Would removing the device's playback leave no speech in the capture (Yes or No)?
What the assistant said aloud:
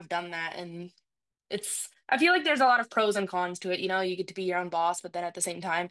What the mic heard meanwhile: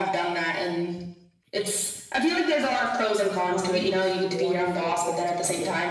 No